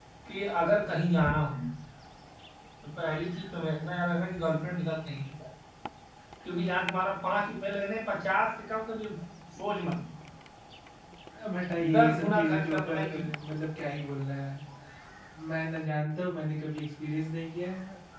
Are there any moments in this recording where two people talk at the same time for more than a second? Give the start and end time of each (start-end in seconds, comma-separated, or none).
11.8-13.2